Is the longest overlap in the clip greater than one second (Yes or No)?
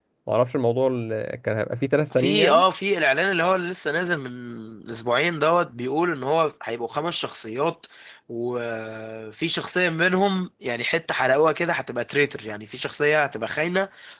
No